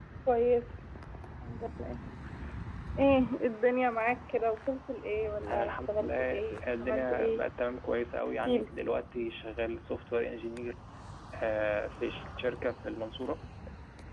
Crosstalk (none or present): present